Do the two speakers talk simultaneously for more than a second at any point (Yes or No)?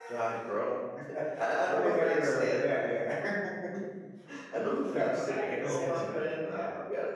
Yes